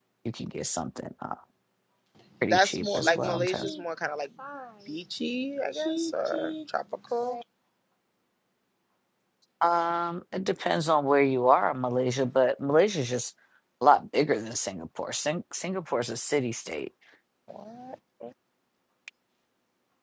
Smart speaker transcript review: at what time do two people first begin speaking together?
2.4 s

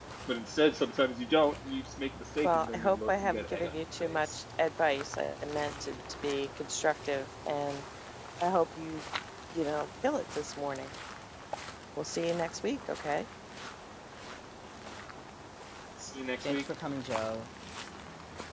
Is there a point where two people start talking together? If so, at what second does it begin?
2.4 s

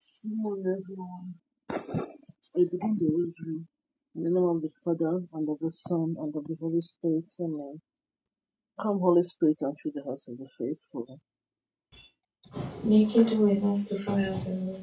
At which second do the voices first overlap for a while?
none

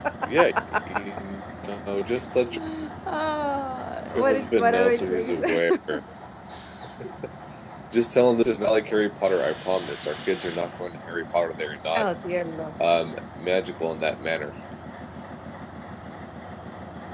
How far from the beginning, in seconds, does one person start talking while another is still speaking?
4.2 s

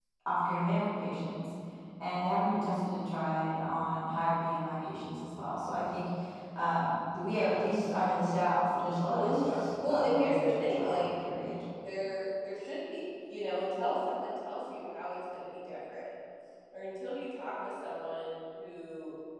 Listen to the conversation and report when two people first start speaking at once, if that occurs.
8.8 s

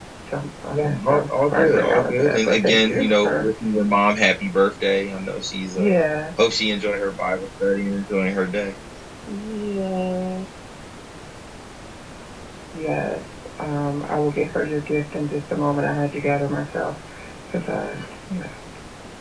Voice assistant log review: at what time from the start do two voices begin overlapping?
0.7 s

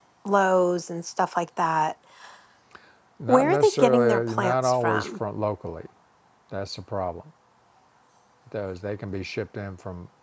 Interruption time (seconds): 3.3 s

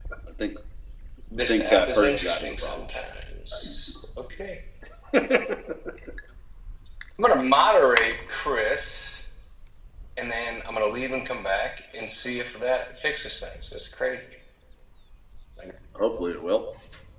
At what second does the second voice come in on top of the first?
1.5 s

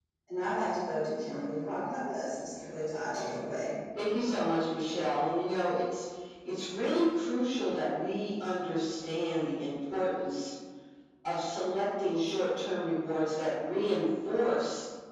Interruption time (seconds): none

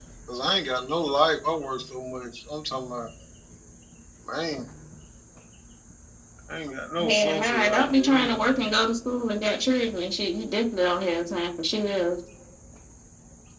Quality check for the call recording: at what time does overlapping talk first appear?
7.1 s

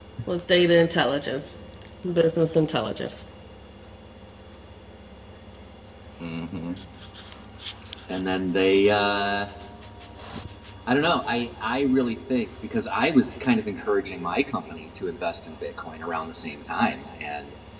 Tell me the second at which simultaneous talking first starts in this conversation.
none

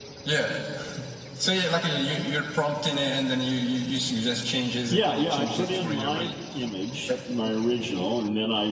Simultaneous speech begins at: 4.9 s

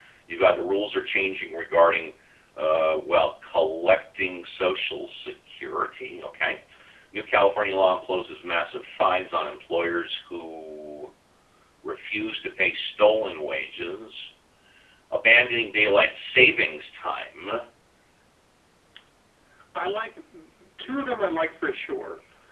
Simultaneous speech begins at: none

